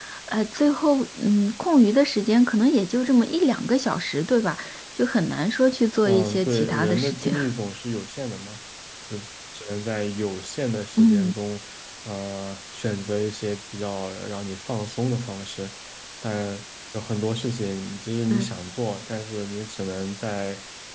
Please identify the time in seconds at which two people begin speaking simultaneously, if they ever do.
6.0 s

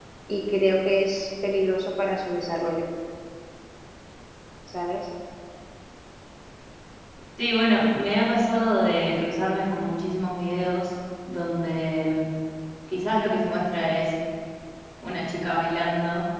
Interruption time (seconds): none

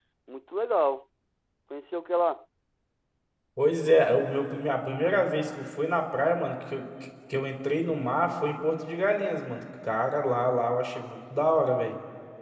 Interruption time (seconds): none

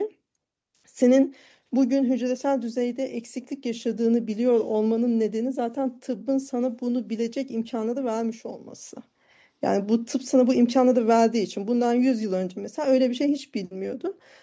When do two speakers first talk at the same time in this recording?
none

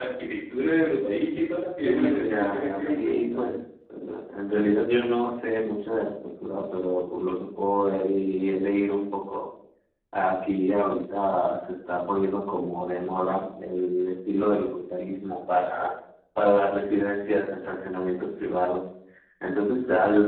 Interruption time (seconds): 1.8 s

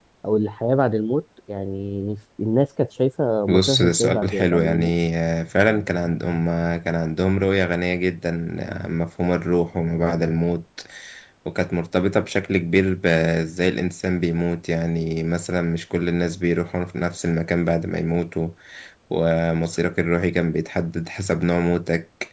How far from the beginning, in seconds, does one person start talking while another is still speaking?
3.5 s

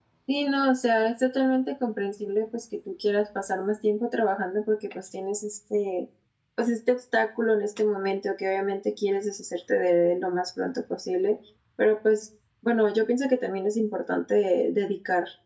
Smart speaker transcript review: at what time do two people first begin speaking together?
none

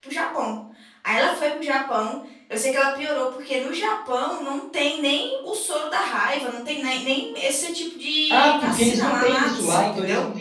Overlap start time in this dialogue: 8.3 s

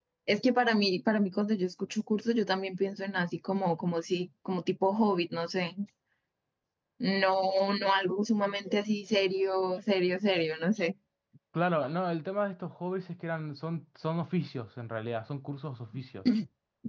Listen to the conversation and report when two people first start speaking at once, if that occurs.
none

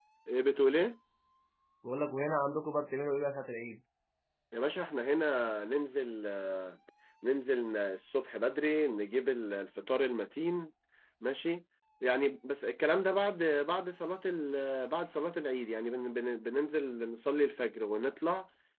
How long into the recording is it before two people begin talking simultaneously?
none

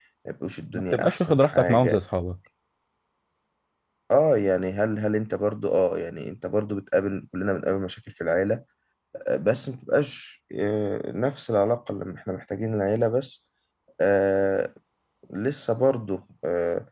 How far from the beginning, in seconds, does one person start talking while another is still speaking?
0.7 s

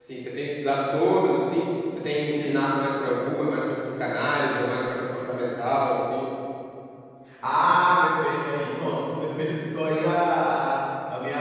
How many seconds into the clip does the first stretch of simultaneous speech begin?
none

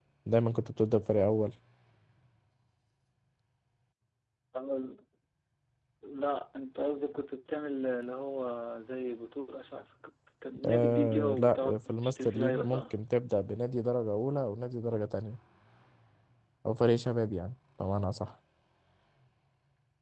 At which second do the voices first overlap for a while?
10.6 s

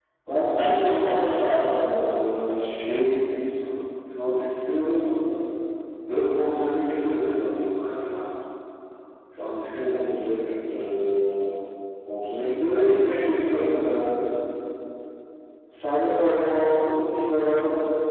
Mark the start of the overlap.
0.5 s

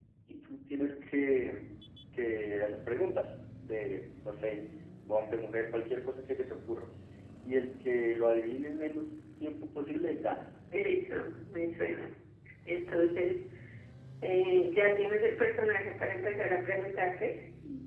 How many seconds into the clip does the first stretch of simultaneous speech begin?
none

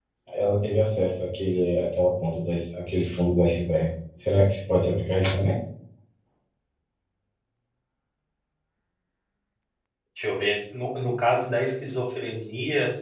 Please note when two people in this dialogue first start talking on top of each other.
none

